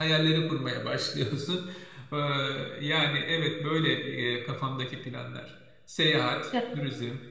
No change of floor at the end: Yes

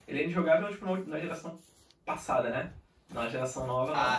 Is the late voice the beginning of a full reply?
No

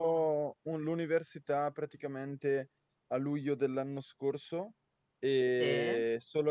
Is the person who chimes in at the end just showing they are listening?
Yes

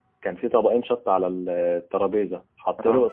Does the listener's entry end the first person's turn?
No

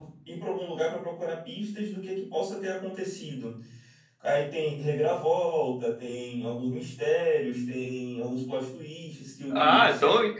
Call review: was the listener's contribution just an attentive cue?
No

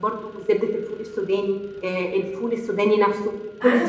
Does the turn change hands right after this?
Yes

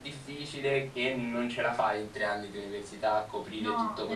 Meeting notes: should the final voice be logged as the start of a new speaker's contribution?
Yes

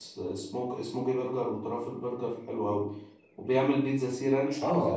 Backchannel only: No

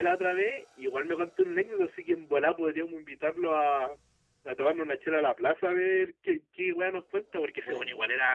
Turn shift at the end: Yes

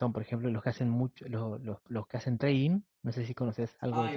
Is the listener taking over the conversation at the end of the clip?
Yes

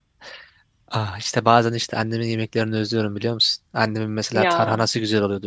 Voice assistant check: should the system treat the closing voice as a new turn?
No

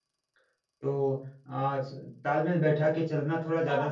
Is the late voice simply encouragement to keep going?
No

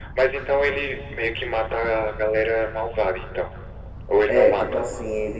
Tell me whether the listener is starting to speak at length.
Yes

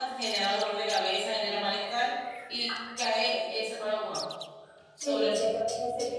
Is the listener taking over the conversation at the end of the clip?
Yes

